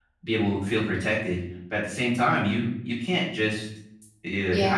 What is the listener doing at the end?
listening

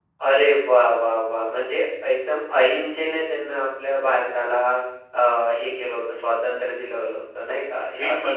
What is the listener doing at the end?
taking over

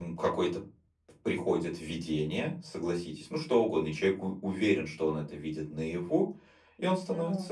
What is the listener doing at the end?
listening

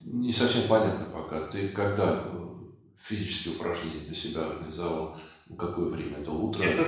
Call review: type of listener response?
taking over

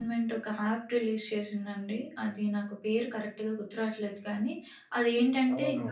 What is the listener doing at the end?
listening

